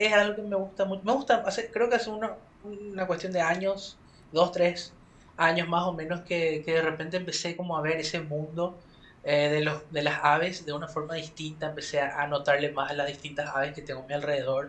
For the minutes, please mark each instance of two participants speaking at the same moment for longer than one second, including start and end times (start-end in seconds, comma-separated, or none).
none